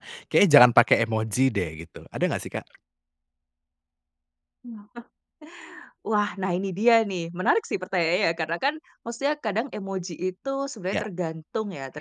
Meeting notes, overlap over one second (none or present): none